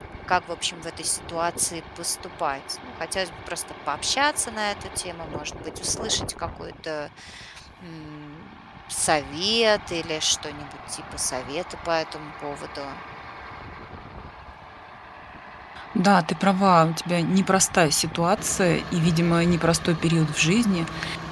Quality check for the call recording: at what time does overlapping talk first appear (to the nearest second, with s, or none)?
none